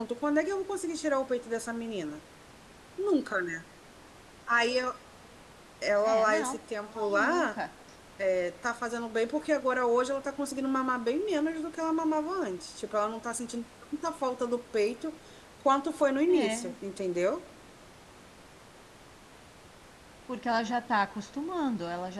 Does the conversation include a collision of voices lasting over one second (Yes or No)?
No